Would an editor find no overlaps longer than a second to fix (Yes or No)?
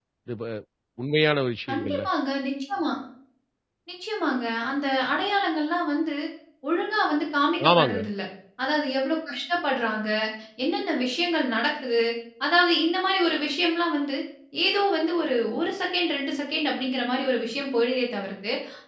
Yes